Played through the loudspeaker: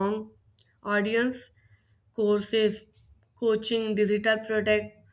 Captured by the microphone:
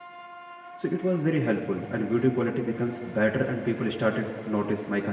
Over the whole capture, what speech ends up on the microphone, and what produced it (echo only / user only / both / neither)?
user only